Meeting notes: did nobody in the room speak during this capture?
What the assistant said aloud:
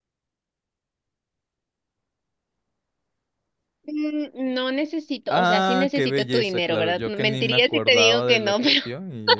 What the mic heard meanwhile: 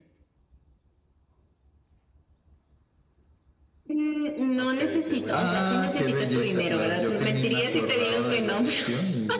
No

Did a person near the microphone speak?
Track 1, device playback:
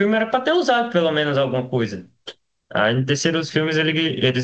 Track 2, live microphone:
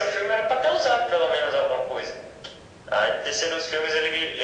No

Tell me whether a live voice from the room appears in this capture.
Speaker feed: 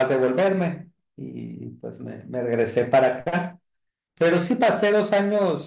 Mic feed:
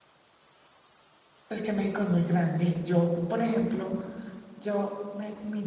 Yes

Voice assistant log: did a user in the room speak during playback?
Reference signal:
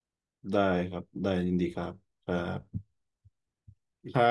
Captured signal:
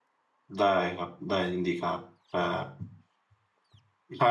No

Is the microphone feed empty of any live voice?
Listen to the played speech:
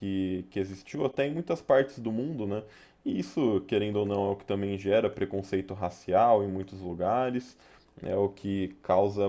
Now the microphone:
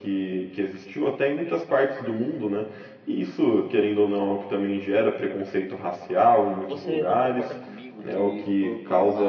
No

